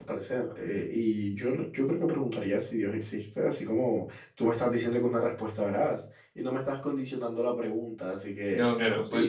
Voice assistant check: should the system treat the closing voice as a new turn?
Yes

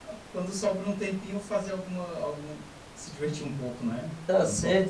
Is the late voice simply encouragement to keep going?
No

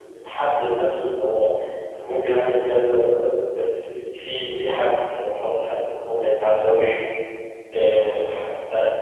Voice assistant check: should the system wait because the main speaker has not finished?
Yes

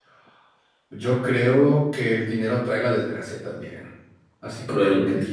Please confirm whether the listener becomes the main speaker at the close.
No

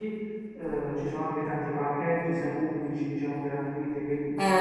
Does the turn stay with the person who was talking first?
No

